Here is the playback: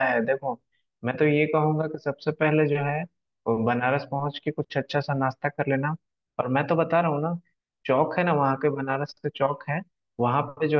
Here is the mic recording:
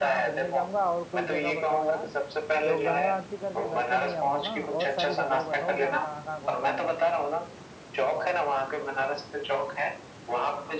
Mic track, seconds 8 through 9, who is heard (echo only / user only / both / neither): echo only